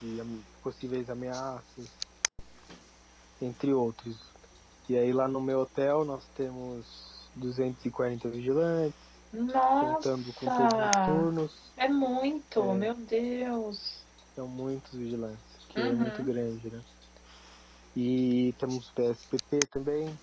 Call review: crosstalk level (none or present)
present